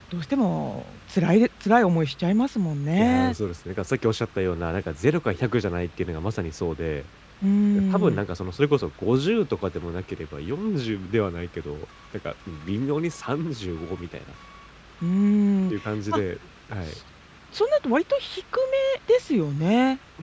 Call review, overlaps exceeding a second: none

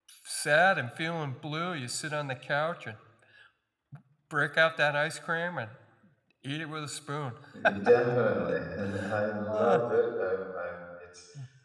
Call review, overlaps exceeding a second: none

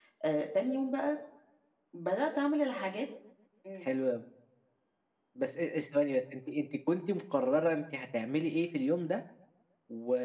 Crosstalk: none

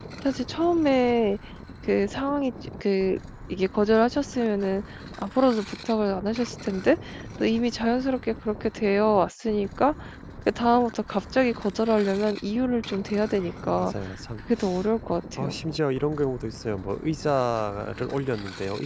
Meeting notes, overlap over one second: none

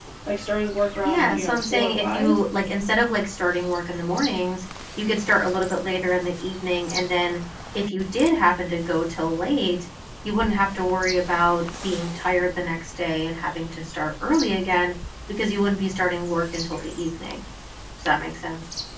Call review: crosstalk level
present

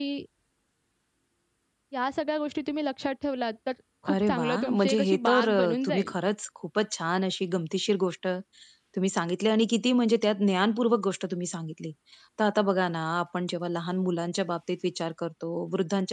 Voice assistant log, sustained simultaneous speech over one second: present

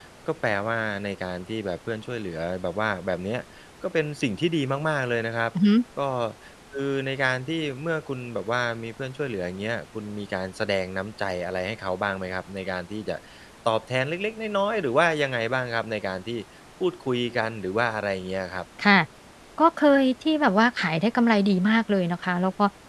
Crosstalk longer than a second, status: none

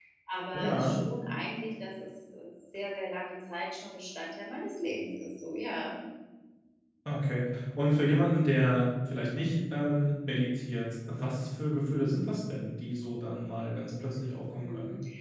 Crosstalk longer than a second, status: none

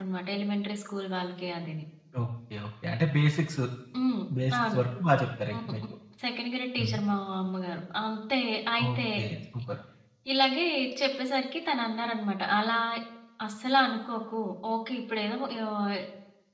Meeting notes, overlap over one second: none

